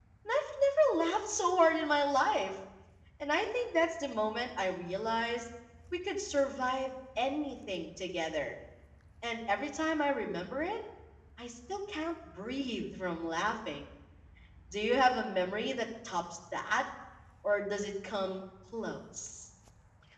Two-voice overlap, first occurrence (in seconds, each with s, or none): none